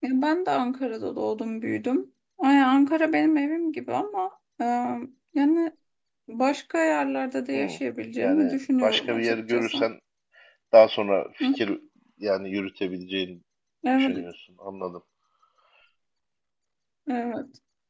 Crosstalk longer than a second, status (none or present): present